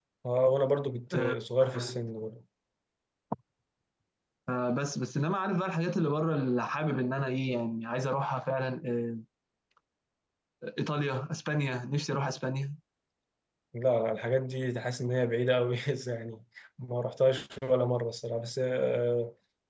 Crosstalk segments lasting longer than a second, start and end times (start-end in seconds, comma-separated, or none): none